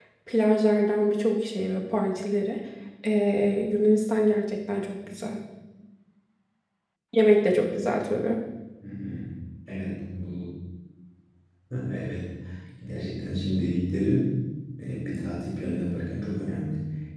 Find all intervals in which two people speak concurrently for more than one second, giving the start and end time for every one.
none

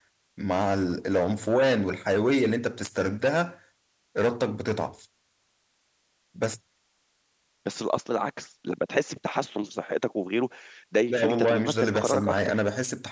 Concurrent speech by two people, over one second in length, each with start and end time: 11.1-12.6

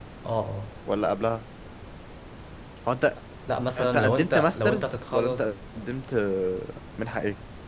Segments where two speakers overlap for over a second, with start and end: 3.8-5.5

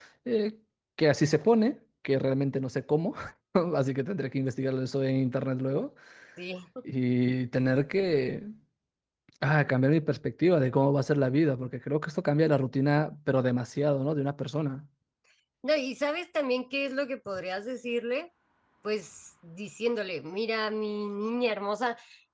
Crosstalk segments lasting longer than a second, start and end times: none

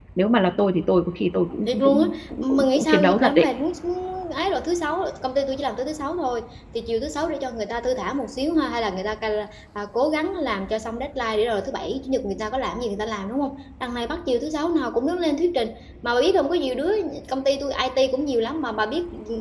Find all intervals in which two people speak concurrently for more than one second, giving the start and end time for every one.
1.6-3.5

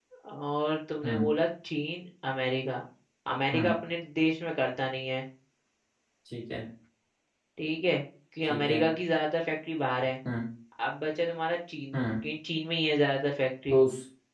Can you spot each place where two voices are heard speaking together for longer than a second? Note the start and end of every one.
none

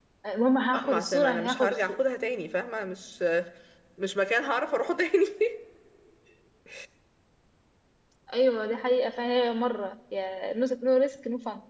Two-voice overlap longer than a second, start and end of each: 0.7-2.0

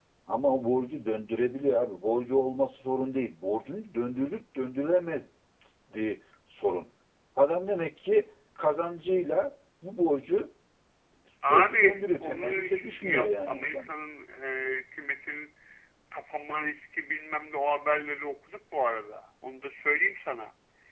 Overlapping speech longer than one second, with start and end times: 11.4-13.9

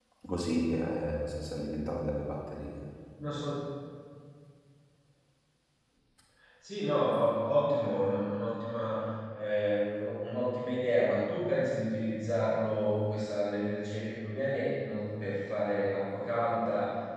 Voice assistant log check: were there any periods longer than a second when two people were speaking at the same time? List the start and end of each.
none

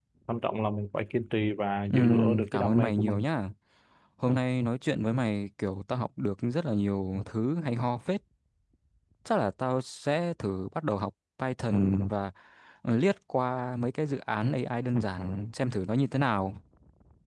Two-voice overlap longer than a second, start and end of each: 1.9-3.2

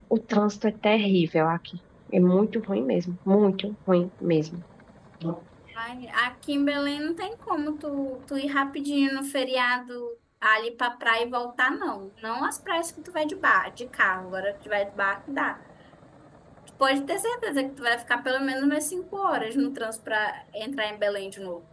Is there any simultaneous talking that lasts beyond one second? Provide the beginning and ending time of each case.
none

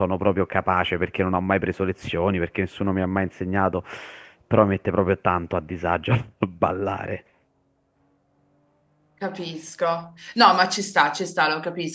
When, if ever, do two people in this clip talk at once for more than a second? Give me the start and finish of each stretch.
none

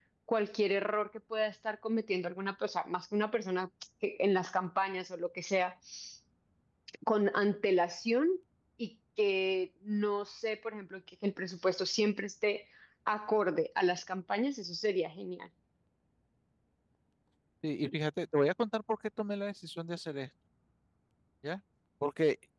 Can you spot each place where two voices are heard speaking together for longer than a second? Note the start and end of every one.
none

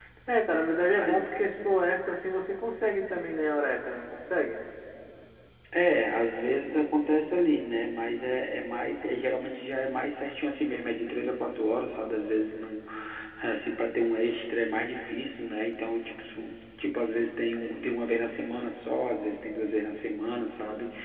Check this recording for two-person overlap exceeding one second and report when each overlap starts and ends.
none

